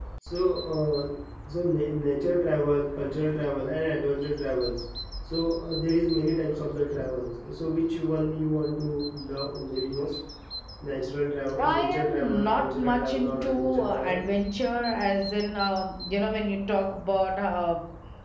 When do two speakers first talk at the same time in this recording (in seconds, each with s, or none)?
11.6 s